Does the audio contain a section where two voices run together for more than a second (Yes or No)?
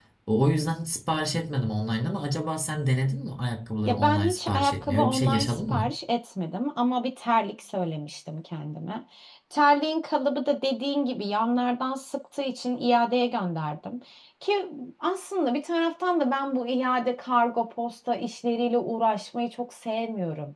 Yes